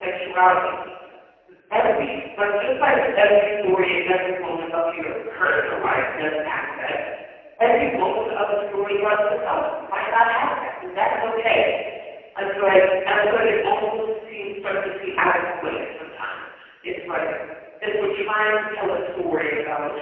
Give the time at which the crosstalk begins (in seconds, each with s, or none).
none